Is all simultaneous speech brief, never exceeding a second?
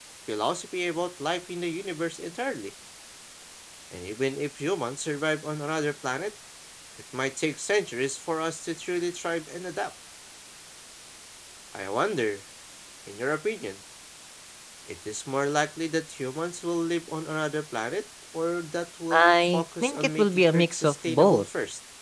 No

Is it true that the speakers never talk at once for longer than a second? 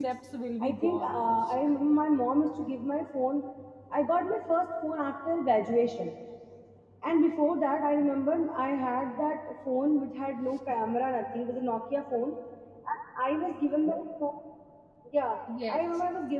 Yes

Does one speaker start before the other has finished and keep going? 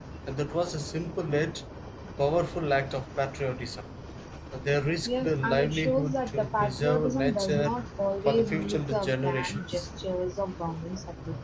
Yes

